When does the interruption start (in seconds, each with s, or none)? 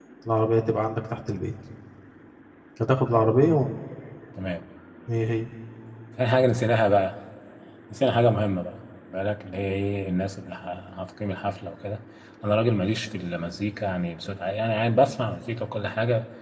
none